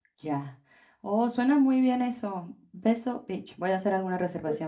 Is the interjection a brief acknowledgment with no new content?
No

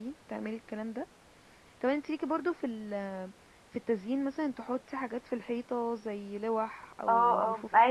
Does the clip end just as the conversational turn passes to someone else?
Yes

